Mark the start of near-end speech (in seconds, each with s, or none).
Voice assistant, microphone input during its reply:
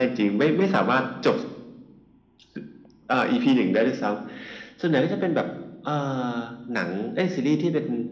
none